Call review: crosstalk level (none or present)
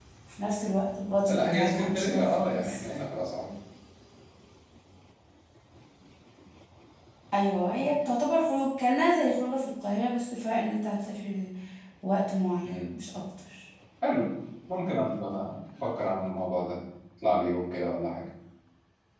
present